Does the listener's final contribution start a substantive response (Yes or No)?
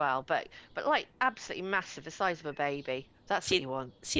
Yes